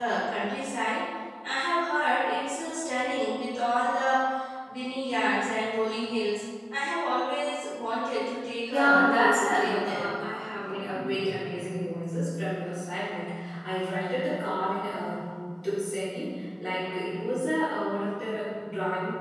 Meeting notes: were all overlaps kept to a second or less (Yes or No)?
No